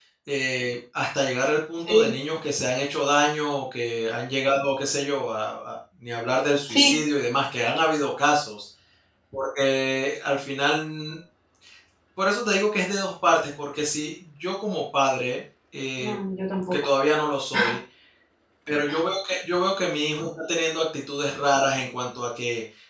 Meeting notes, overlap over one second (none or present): none